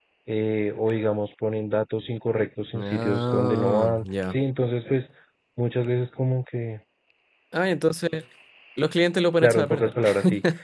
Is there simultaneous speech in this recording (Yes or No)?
Yes